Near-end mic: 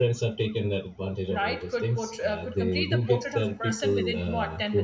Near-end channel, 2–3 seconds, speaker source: both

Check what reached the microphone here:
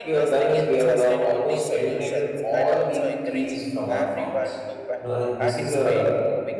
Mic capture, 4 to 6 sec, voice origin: both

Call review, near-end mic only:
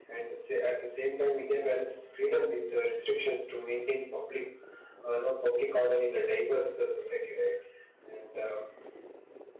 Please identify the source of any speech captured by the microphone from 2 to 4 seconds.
echo only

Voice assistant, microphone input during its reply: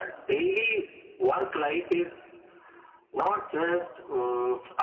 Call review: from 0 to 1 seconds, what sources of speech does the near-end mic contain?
echo only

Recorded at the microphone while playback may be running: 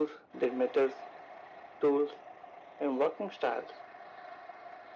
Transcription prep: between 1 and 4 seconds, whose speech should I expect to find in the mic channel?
echo only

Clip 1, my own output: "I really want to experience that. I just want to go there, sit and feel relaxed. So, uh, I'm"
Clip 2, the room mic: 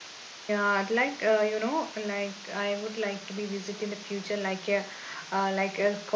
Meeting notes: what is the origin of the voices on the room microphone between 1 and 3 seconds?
user only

